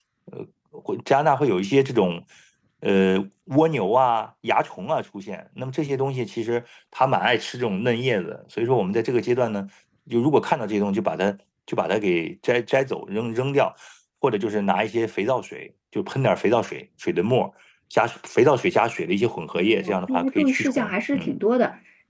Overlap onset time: 19.6 s

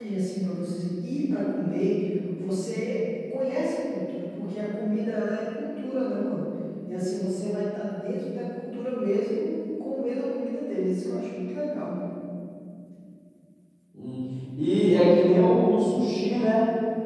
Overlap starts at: none

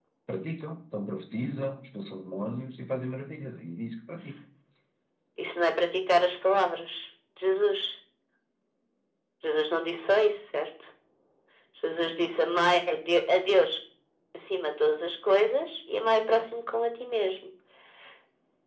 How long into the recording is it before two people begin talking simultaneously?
none

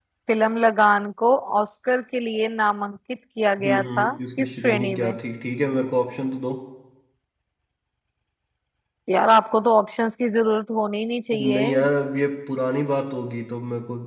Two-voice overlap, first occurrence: 3.6 s

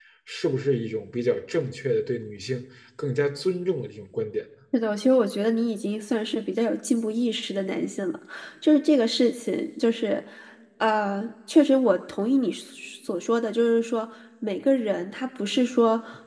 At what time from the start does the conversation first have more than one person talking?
none

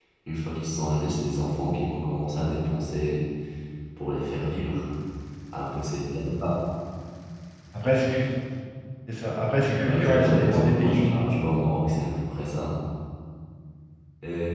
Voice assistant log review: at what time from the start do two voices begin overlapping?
9.8 s

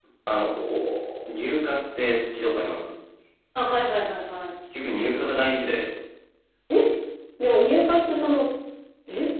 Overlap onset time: none

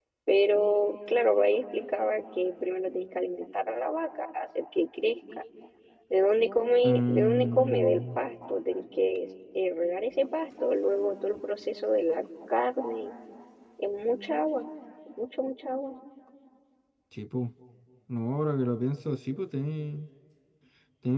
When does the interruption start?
6.8 s

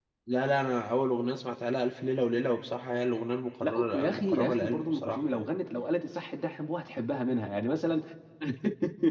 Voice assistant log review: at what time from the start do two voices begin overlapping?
3.6 s

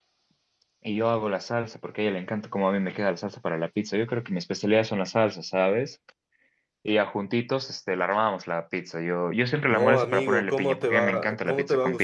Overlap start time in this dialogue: 9.7 s

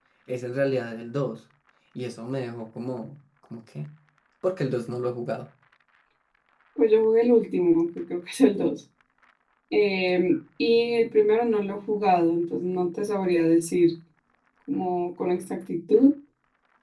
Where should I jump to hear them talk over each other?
none

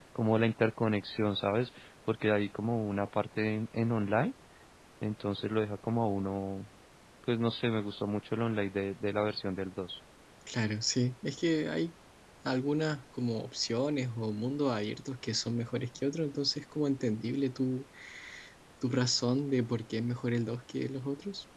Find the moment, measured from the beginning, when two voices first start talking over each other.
none

